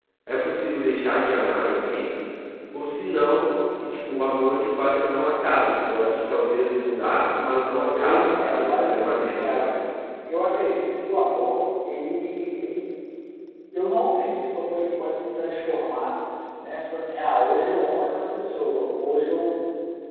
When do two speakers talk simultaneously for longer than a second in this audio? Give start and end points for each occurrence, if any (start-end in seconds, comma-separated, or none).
8.0-9.7